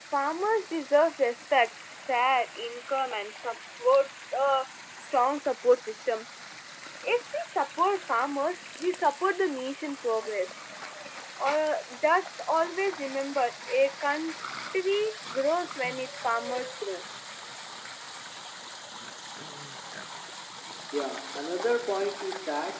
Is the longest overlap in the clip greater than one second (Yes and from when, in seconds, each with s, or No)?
No